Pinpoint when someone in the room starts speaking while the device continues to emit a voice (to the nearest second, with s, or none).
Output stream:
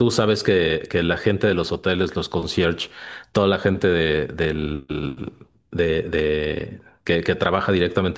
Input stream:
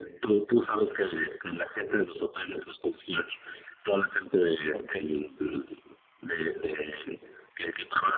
5 s